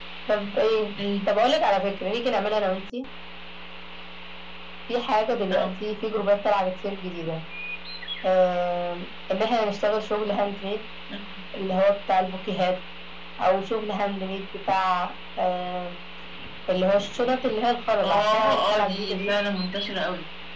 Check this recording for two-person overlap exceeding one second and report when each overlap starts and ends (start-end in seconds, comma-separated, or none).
18.0-19.3